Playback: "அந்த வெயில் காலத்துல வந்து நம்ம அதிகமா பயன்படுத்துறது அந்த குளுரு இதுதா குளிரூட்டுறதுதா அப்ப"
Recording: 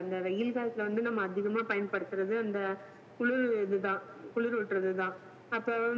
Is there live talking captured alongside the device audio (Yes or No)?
No